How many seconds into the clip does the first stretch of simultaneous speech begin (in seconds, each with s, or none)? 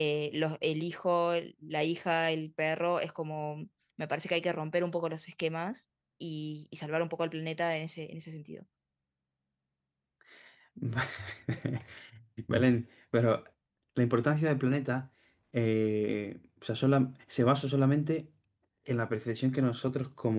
none